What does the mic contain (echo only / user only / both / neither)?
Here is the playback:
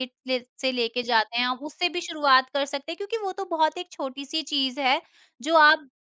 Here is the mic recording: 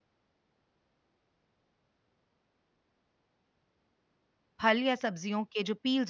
user only